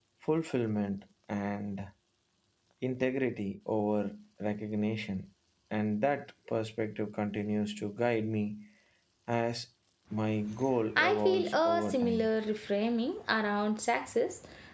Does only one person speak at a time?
No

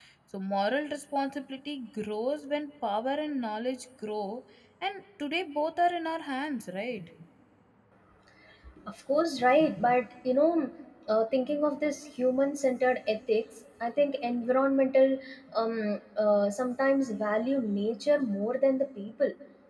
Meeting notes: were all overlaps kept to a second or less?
Yes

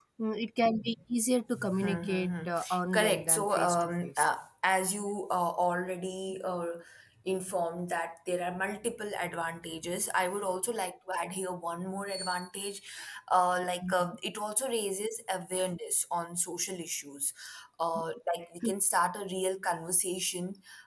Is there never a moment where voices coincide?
No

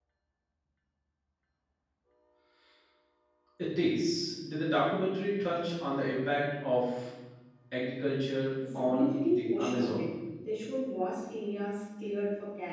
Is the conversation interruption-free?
No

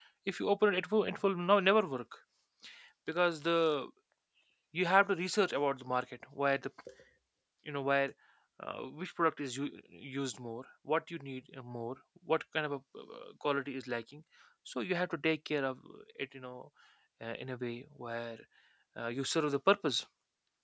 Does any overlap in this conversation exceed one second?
No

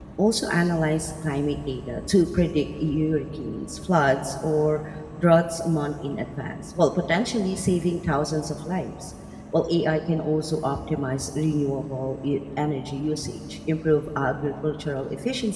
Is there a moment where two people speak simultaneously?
No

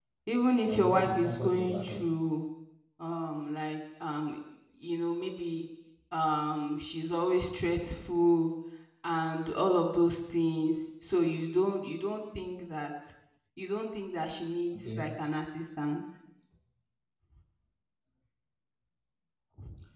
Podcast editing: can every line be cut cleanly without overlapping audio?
No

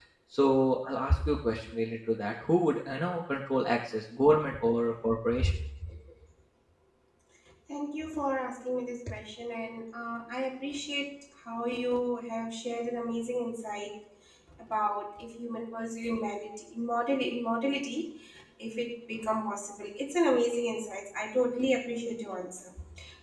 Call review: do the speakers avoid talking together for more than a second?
Yes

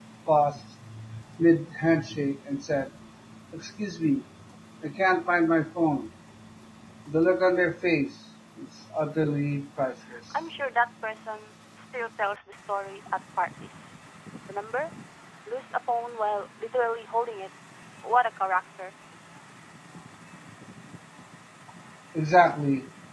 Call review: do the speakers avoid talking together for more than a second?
Yes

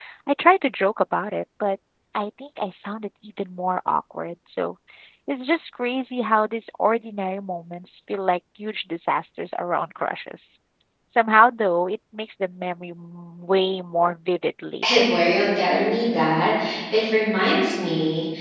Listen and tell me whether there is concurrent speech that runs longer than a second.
No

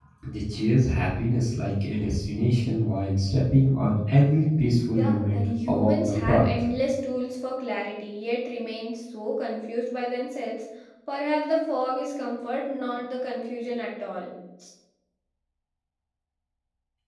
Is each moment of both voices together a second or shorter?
No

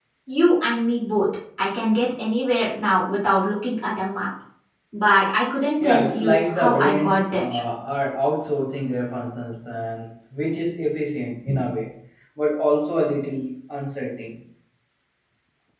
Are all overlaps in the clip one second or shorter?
No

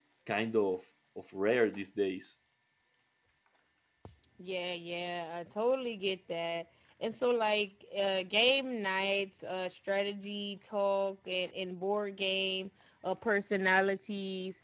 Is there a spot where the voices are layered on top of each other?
No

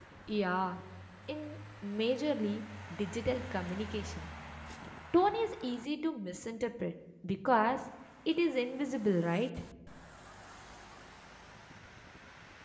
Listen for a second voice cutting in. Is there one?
No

